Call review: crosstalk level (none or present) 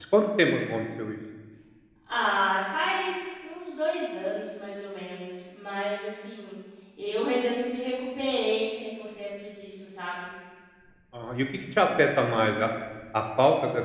none